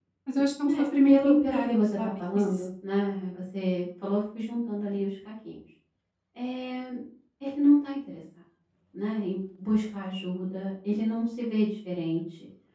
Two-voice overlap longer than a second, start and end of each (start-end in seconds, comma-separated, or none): 0.7-2.7